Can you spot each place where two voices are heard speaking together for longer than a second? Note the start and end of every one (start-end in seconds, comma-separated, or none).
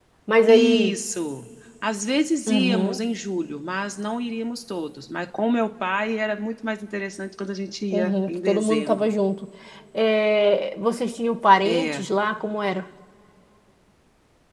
7.9-9.1